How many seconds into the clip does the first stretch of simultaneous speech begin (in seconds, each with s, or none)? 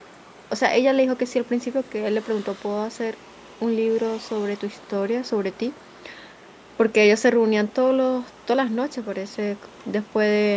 none